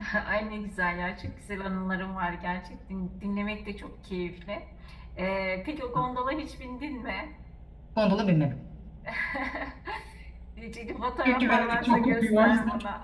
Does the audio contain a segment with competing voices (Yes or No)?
Yes